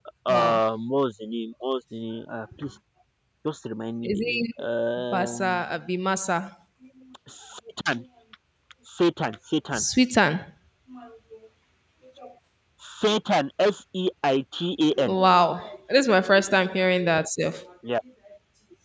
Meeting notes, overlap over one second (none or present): none